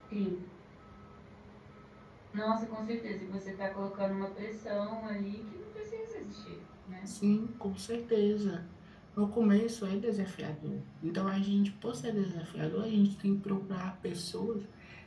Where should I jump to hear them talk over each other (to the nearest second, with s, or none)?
none